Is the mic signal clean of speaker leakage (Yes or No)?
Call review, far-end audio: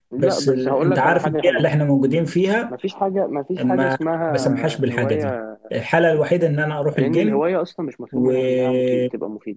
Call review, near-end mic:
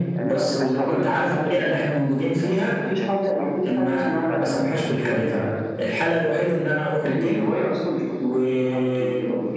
No